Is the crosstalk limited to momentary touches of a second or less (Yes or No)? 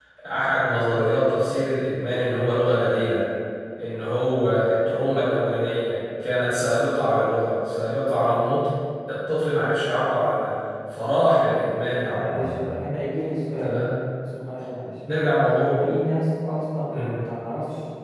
Yes